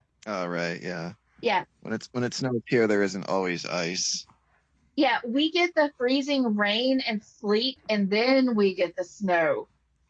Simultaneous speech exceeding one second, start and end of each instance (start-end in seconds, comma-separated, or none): none